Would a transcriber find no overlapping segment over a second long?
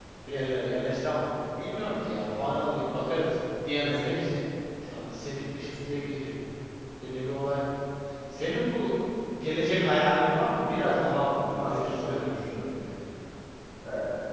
No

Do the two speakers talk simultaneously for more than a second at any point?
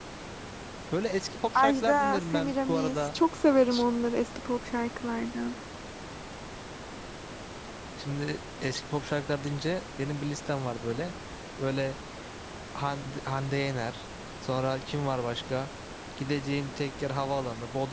Yes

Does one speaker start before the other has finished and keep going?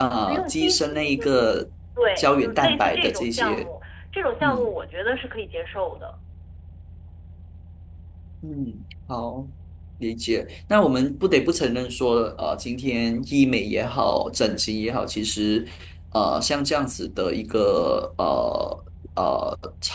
Yes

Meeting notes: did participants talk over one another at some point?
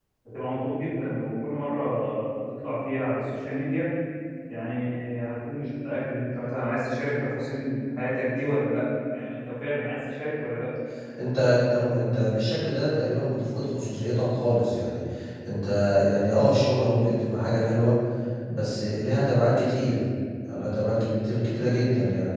No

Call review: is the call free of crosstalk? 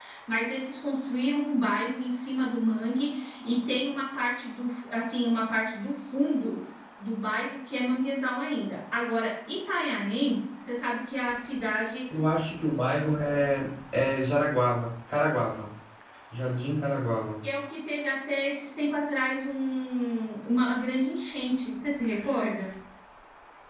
Yes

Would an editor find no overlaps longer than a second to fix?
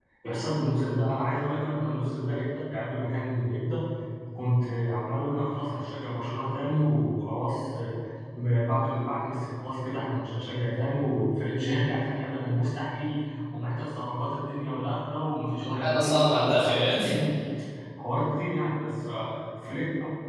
No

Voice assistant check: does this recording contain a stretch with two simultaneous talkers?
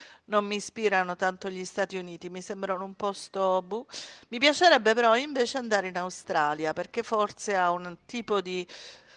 No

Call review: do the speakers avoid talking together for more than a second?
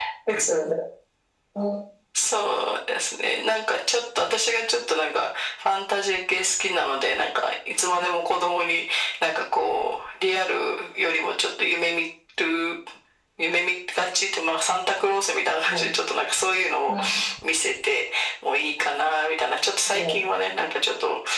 Yes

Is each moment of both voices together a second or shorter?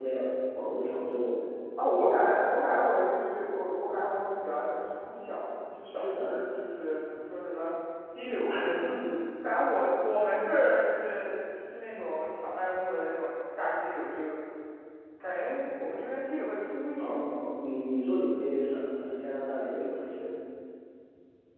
Yes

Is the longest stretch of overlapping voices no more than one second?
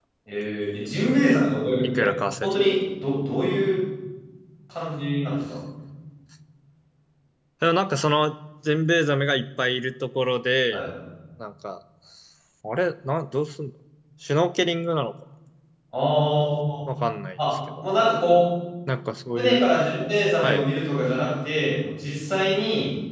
Yes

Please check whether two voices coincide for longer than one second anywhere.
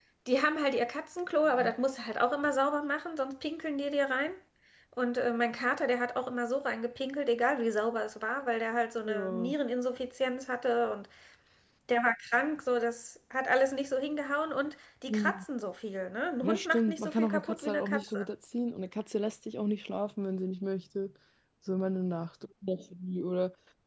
Yes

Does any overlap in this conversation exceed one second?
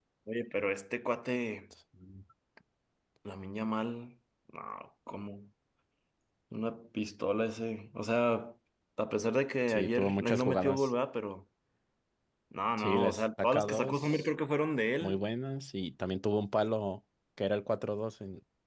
Yes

